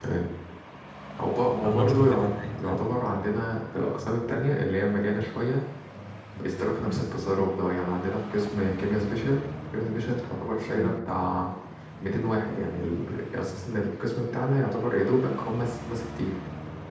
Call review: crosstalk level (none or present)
present